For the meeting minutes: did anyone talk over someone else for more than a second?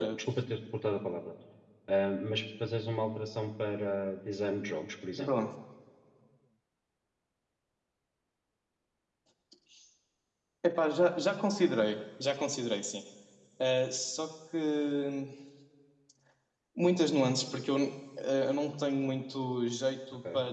No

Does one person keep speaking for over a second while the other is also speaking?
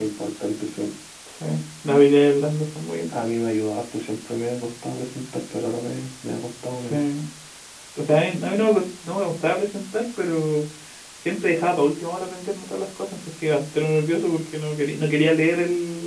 No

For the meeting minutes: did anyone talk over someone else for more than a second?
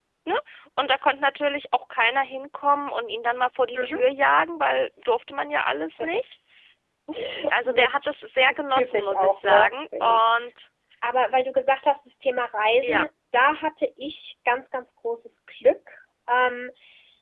Yes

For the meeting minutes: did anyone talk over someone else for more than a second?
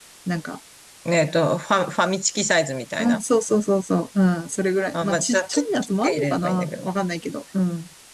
Yes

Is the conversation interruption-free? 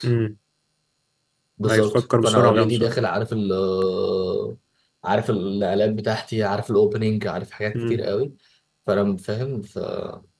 No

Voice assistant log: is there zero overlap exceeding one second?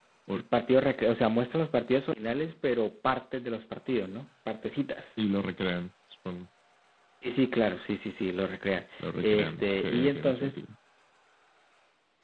No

